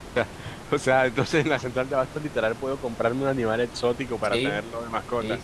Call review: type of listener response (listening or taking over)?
taking over